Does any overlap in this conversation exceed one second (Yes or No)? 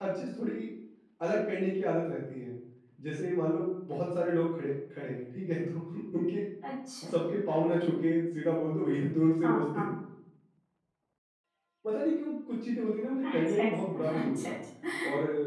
Yes